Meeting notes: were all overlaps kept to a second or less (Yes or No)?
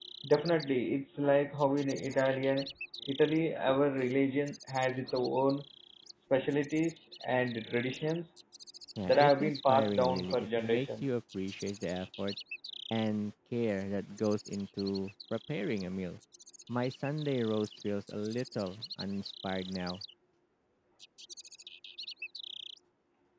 No